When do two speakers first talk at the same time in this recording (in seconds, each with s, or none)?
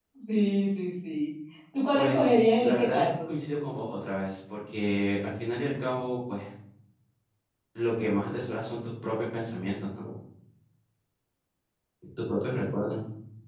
2.0 s